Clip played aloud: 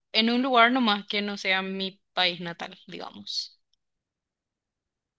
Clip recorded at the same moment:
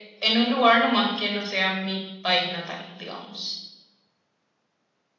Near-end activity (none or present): none